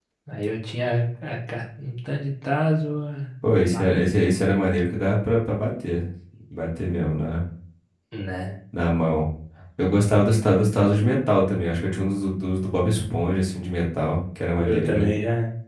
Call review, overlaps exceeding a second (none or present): none